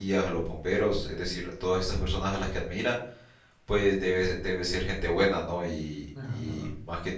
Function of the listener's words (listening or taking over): listening